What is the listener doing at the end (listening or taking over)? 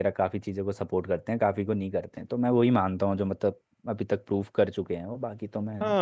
taking over